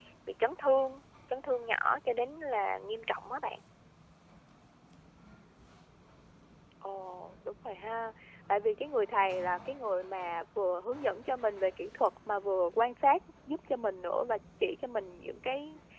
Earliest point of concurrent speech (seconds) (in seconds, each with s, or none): none